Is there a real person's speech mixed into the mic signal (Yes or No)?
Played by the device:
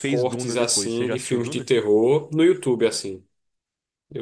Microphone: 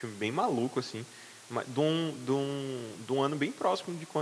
Yes